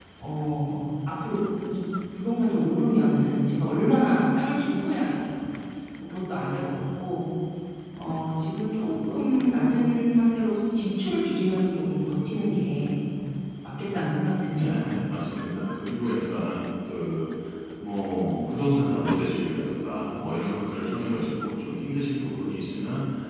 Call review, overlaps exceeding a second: none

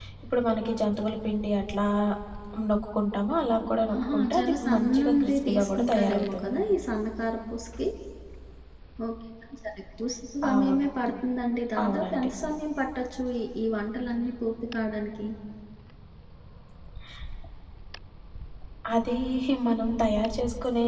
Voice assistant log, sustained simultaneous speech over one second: present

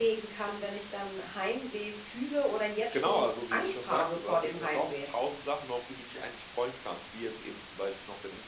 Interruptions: present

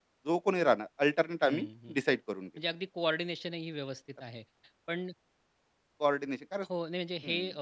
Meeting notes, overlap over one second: none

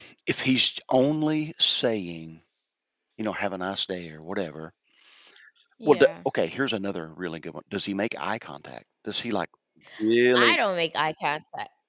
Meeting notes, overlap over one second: none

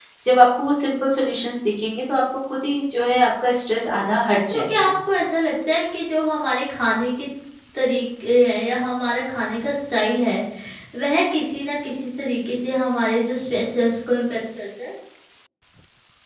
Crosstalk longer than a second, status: none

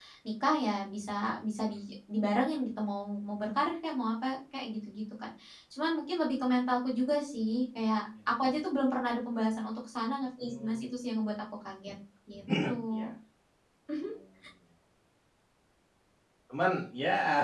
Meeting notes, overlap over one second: none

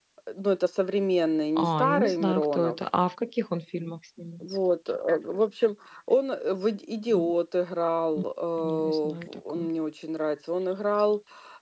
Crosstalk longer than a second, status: present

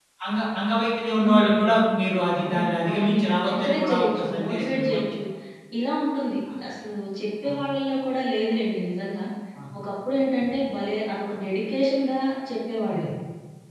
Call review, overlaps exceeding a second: present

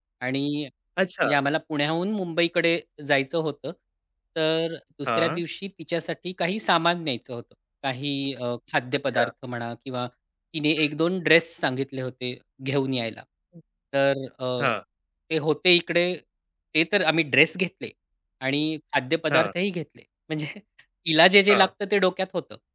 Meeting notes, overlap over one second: none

